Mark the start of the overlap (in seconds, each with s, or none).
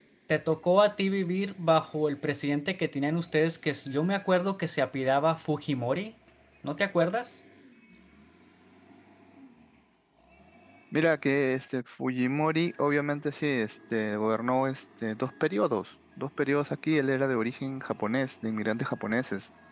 none